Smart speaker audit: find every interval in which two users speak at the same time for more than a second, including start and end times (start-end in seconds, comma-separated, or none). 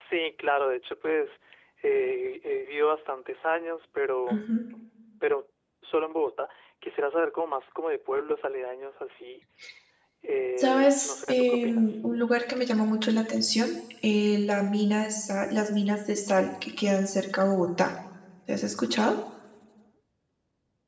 10.6-11.9